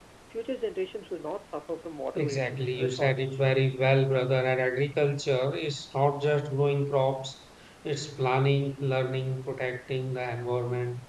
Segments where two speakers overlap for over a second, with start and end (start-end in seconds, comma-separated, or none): 2.1-3.4